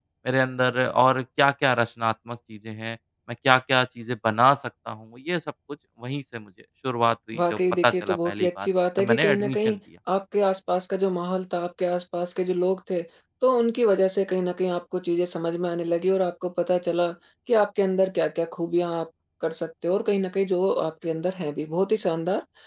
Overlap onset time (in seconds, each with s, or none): 7.3 s